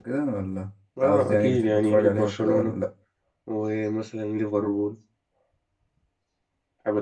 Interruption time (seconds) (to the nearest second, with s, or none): 1 s